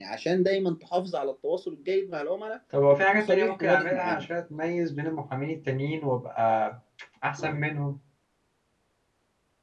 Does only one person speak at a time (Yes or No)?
No